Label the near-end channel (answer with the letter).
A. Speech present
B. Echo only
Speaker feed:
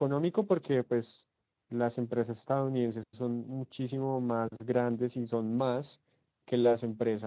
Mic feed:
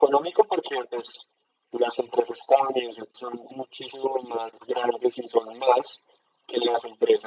B